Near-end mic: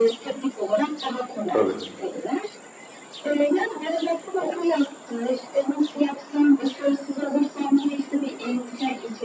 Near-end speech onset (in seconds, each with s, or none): 1.5 s